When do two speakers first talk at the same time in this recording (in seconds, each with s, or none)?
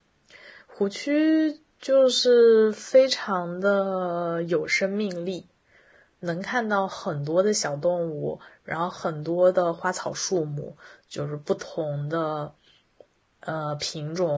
none